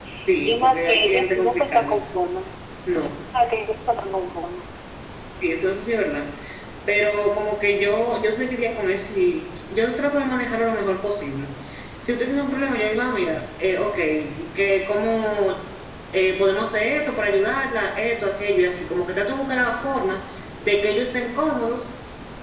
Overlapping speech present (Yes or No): Yes